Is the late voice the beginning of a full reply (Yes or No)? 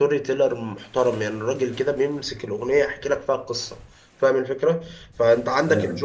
No